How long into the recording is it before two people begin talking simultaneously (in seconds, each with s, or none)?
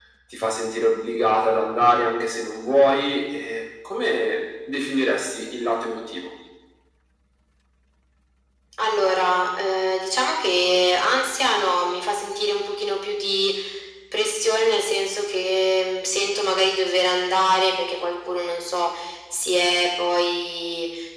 none